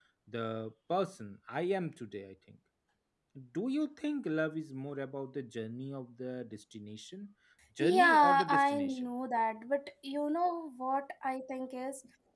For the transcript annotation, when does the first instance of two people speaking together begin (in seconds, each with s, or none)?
7.8 s